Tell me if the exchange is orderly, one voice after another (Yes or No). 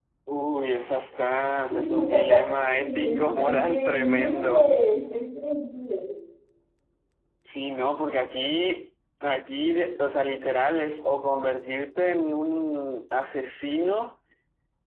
No